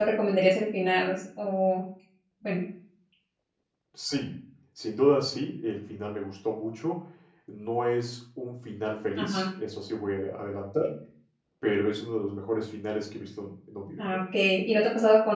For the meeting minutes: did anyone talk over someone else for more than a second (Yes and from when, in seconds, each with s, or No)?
No